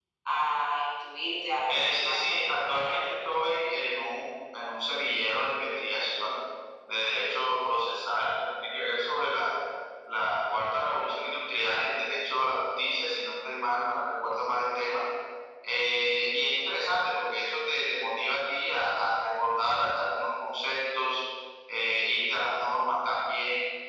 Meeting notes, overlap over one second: present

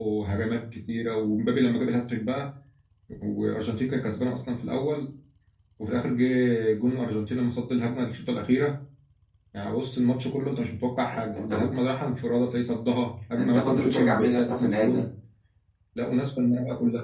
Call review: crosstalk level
present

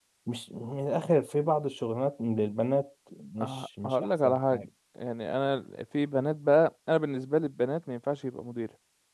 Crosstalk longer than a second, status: present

